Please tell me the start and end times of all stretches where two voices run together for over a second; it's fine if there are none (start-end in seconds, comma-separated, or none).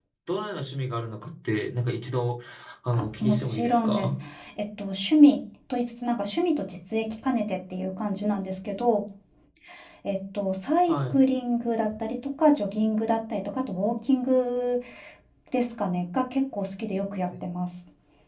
2.9-4.2